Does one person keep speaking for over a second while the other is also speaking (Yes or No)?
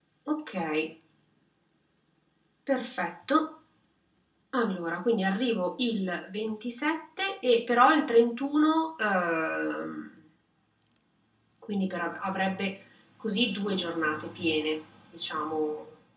No